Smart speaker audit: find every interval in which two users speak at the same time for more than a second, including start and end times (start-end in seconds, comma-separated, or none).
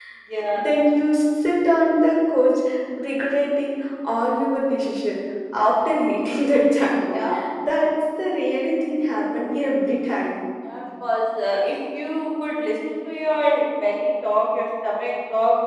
none